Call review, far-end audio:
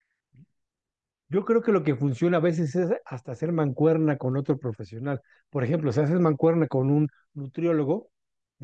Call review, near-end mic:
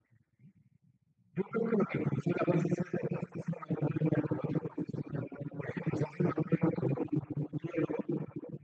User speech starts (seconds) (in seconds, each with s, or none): none